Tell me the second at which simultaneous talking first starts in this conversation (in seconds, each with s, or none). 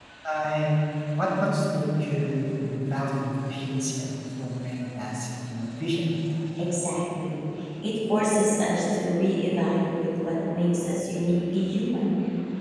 none